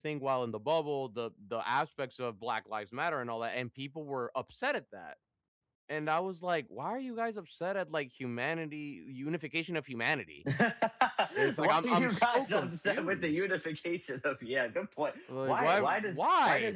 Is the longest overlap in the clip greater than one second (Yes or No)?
Yes